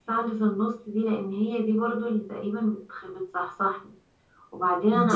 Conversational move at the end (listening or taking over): listening